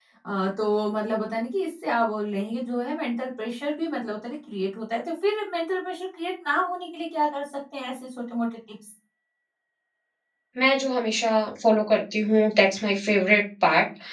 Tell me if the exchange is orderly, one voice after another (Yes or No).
Yes